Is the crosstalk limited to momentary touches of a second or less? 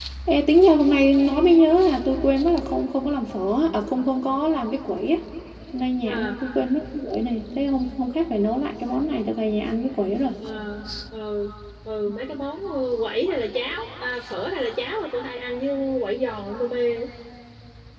Yes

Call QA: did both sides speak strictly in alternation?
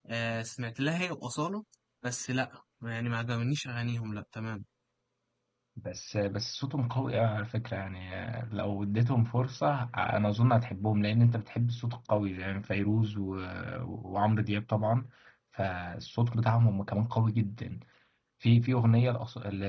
Yes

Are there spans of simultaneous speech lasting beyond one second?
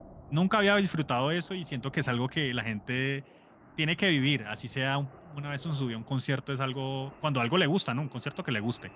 No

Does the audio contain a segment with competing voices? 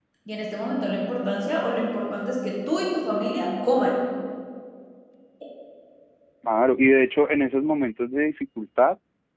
No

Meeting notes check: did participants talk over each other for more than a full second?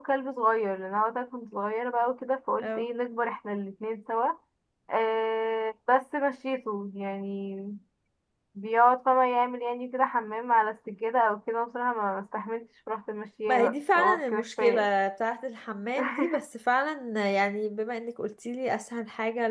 Yes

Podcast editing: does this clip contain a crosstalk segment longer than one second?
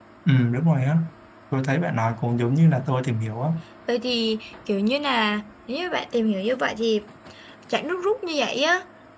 No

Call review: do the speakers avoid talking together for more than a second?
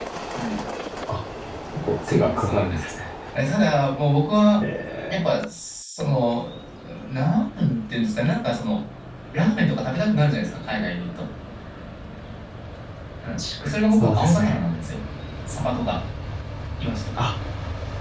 No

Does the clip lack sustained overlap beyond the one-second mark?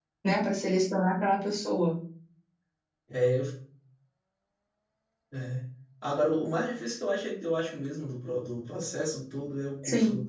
Yes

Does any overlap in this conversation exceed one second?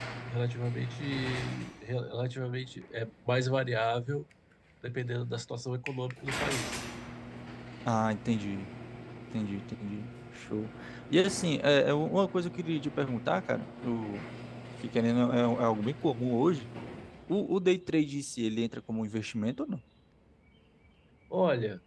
No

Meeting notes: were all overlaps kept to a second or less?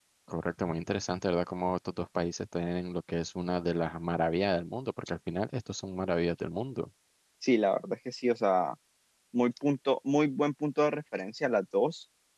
Yes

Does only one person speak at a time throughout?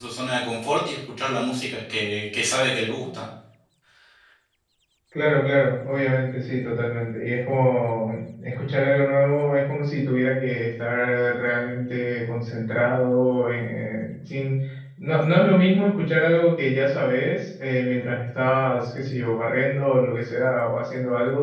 Yes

